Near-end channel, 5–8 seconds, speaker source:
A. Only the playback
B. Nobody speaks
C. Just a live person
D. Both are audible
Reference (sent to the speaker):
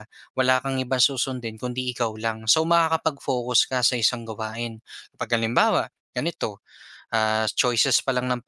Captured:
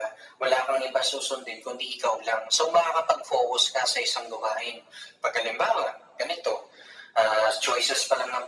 A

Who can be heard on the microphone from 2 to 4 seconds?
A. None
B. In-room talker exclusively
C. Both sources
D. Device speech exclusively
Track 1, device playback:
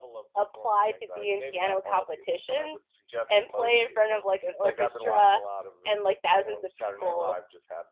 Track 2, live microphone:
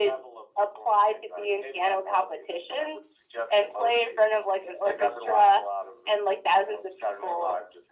D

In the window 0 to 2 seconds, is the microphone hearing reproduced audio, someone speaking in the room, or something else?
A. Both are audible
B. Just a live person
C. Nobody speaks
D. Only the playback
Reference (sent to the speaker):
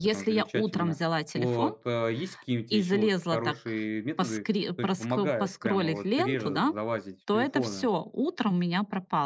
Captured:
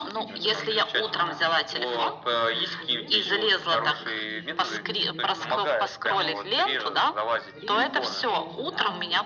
A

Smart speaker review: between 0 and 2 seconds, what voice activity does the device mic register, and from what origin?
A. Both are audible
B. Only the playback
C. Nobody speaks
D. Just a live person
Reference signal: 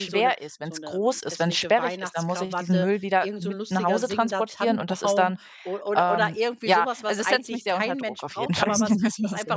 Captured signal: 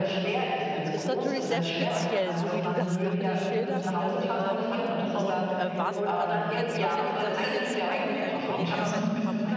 A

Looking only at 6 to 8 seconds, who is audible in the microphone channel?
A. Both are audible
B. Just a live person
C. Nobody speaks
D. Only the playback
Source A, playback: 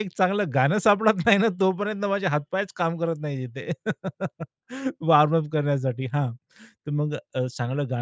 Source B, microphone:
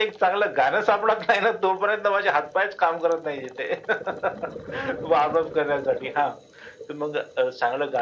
D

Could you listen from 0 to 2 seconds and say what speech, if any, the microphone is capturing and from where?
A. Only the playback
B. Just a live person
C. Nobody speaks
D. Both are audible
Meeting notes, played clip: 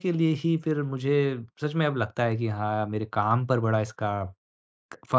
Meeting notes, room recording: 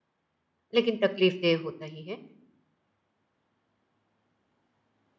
B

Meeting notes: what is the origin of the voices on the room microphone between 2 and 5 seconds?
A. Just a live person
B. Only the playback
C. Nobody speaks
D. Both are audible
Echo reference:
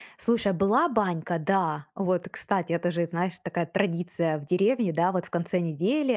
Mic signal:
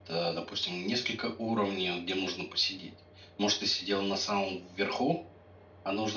A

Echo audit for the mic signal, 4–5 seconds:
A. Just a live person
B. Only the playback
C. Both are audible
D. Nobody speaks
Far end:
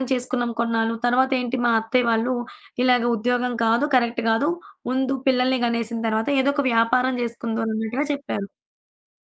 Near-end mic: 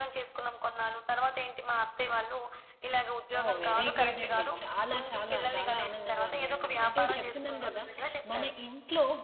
C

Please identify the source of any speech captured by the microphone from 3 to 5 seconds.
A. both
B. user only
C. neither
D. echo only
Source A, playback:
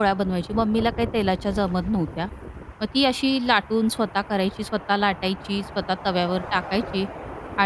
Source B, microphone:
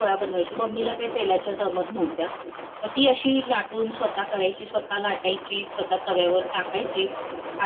D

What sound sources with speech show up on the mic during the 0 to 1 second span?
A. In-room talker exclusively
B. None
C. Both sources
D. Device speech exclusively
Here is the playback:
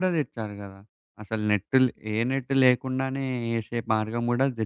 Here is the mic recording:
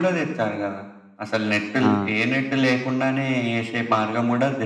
D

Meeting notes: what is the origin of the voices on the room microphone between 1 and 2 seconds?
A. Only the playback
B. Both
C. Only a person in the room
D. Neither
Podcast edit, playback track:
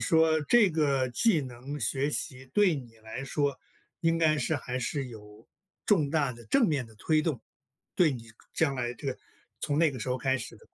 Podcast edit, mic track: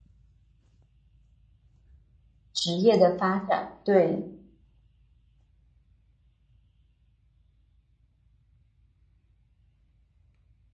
D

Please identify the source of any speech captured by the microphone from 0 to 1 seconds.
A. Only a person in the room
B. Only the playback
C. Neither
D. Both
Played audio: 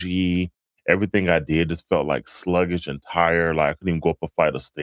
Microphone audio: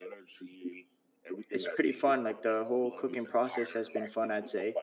B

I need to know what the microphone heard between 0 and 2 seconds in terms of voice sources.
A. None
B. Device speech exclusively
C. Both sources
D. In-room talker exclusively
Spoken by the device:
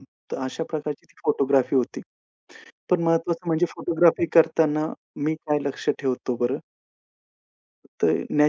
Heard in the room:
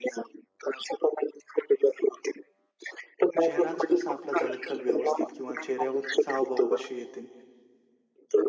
B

